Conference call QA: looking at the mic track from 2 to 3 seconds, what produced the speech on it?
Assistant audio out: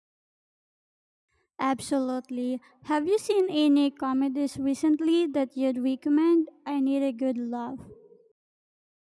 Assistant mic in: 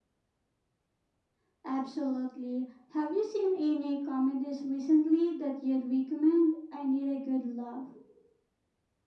echo only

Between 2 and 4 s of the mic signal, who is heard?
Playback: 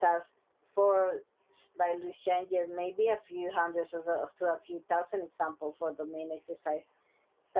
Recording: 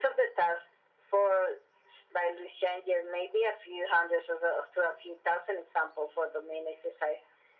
echo only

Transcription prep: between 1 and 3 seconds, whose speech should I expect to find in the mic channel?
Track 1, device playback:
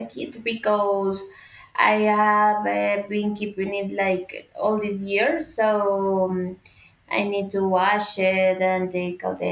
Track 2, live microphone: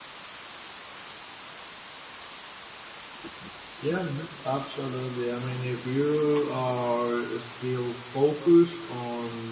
neither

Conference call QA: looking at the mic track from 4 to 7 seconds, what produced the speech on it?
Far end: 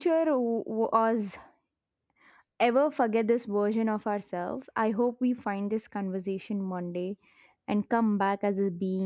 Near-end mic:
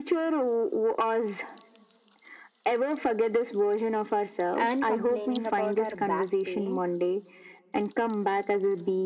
both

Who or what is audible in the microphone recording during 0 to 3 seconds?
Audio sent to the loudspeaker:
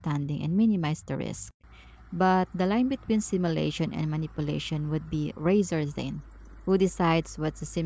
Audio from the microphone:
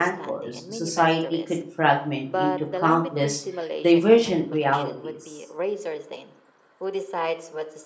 both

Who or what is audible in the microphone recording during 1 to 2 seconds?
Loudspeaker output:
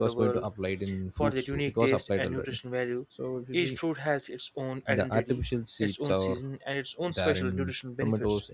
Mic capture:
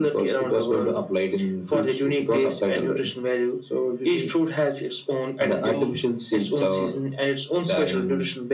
echo only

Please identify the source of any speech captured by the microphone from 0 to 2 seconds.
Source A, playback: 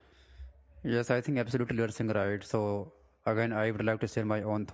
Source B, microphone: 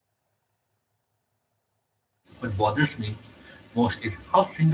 neither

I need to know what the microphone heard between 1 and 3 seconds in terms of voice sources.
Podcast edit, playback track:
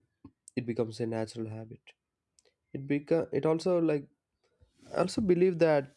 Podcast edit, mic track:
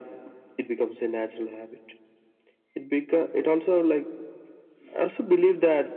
echo only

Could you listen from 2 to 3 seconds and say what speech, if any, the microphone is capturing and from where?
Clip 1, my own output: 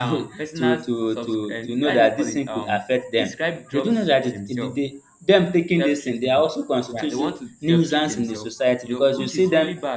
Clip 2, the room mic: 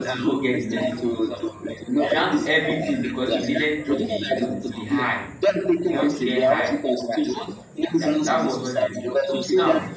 both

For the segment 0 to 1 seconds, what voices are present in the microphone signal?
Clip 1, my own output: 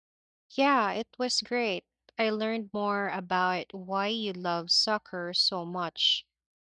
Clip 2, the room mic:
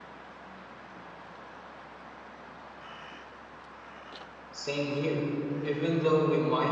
neither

